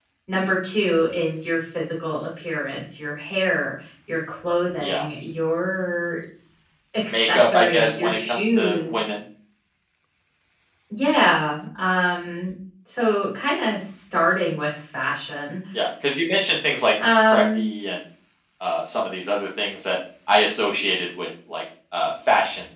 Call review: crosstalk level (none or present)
present